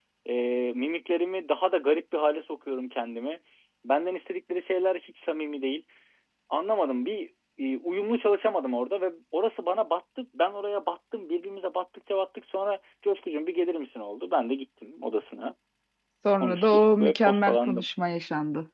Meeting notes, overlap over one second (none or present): present